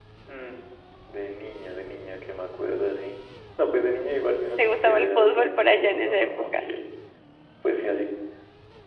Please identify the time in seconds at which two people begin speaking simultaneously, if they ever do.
4.6 s

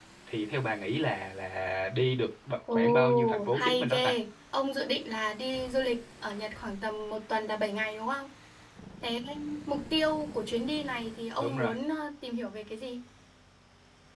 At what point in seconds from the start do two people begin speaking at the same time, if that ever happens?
2.7 s

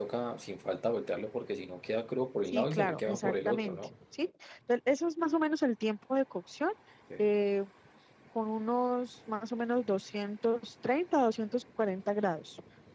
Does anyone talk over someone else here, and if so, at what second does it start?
2.5 s

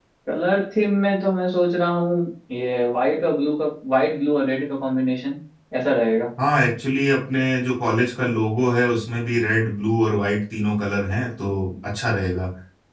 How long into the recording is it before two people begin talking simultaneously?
none

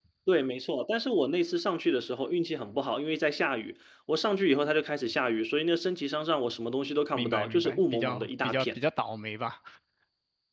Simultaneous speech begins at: 7.2 s

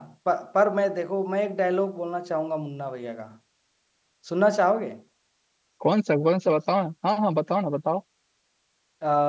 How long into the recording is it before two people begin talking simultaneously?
none

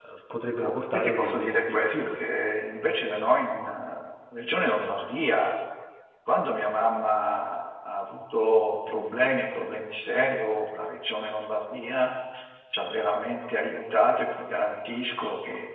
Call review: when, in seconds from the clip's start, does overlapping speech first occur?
0.6 s

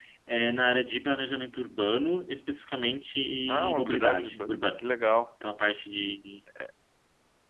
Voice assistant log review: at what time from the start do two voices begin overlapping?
3.5 s

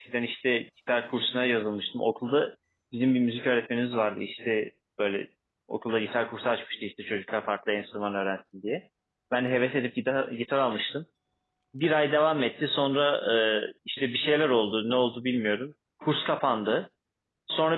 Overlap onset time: none

